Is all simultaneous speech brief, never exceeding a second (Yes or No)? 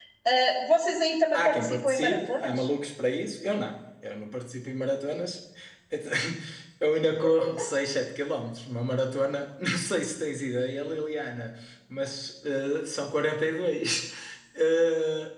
No